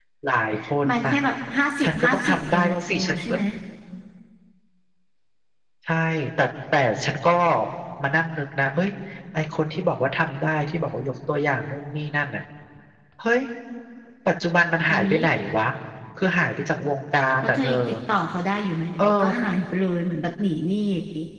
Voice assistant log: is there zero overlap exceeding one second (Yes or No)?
No